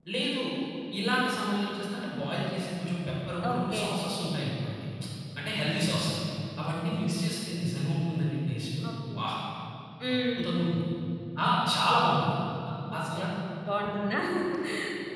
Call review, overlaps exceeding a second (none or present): none